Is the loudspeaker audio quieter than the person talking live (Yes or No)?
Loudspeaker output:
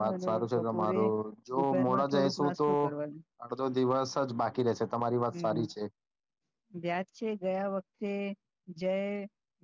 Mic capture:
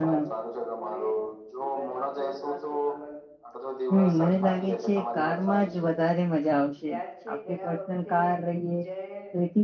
Yes